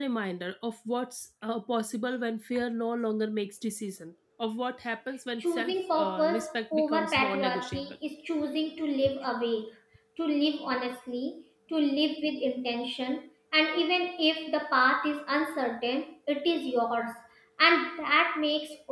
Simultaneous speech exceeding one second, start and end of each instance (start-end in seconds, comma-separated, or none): 5.4-7.9